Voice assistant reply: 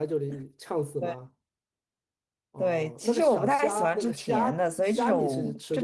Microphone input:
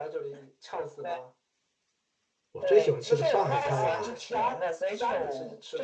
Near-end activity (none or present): present